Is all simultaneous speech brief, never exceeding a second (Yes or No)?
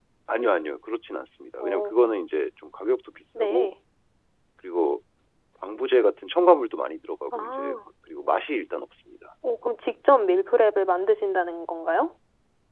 Yes